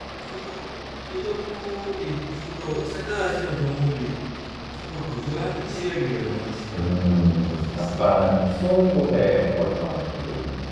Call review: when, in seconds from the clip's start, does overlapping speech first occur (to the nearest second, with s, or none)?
7 s